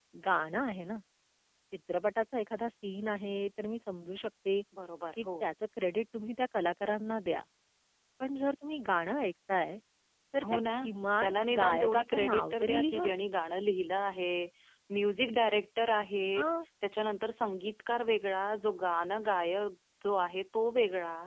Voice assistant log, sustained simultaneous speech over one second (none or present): present